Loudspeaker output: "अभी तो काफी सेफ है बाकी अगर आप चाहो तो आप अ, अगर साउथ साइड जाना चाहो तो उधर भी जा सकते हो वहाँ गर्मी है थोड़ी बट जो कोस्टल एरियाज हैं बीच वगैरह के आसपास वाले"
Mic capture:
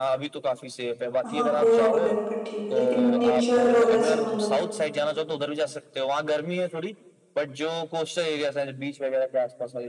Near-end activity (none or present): present